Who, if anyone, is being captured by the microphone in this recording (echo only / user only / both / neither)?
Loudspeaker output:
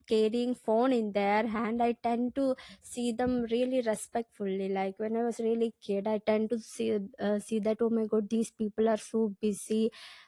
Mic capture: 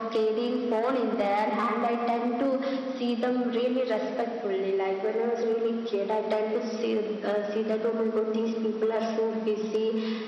echo only